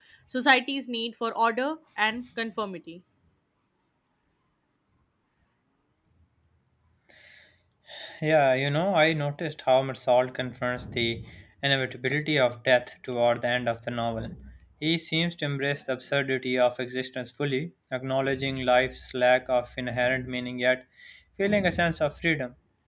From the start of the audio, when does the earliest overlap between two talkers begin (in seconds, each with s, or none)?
none